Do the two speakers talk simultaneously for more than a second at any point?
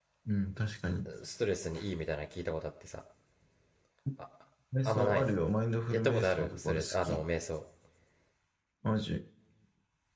Yes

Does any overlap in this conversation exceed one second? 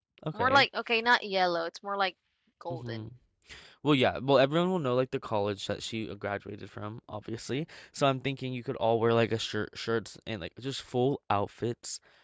No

